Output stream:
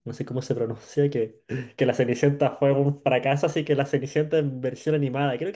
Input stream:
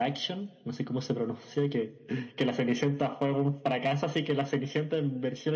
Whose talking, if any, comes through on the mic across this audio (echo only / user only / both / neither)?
echo only